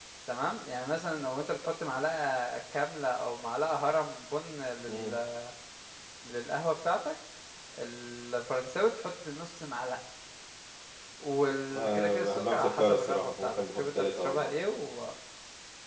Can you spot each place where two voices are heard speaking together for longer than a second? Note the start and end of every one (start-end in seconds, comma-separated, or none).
11.8-14.5